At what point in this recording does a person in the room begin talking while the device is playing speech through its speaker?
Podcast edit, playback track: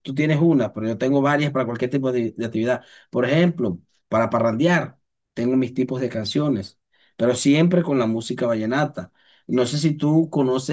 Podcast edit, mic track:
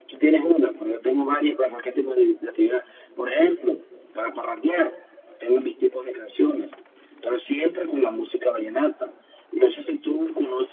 none

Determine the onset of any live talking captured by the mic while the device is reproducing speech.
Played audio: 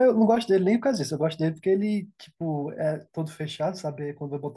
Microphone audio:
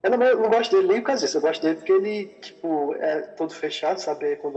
none

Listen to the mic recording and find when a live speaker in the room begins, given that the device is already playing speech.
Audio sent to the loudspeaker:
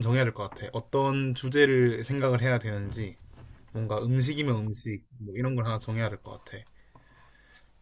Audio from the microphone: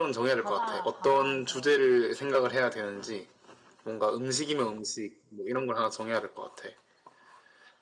0.4 s

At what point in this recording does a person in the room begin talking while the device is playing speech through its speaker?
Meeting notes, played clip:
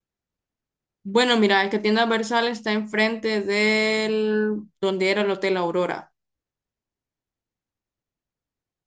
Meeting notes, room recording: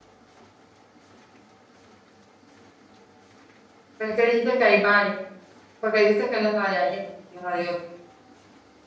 4.0 s

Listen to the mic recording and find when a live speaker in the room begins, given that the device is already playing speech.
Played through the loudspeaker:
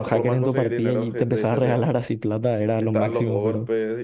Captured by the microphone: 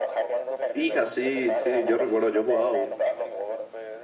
0.7 s

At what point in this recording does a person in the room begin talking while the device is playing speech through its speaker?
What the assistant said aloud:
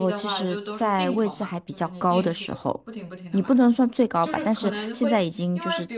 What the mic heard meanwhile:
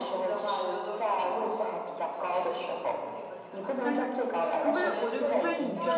3.8 s

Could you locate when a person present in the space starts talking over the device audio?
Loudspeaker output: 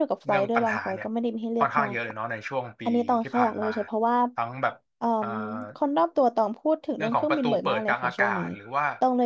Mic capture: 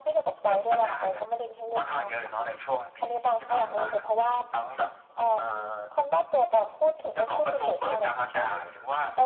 none

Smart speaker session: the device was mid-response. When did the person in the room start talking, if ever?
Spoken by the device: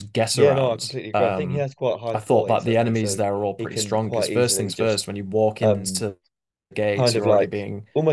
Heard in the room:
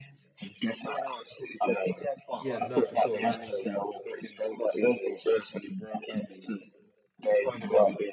2.4 s

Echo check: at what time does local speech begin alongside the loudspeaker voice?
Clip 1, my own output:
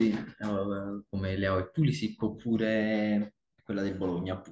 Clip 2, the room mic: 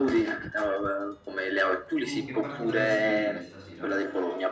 2.0 s

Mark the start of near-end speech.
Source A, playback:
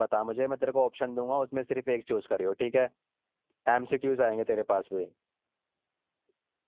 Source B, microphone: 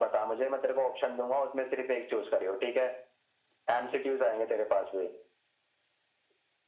none

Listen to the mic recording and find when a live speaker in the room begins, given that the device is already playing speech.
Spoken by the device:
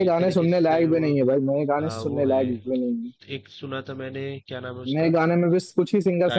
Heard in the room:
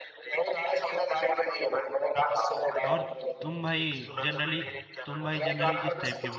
2.9 s

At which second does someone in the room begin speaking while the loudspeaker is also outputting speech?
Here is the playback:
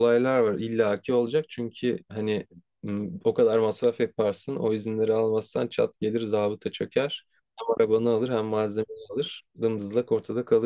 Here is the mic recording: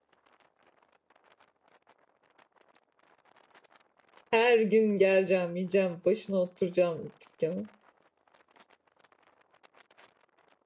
4.3 s

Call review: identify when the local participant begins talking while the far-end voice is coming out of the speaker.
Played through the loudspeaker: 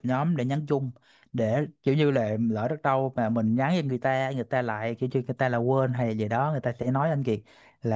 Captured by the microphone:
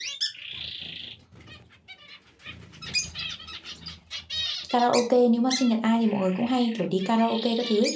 4.7 s

